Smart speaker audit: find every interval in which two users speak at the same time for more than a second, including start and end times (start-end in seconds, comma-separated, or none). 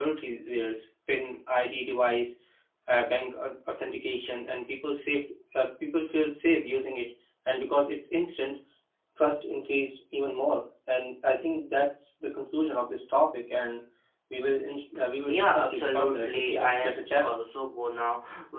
15.3-17.5